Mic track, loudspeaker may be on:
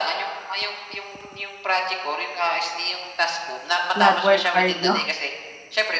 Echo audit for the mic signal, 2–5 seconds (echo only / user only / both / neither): both